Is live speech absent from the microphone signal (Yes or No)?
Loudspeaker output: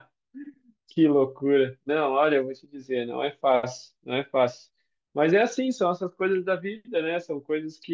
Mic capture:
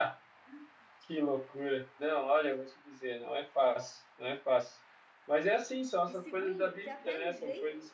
No